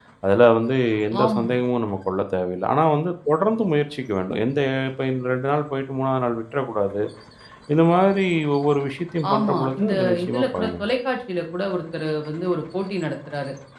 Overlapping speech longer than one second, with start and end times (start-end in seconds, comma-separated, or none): 9.3-10.9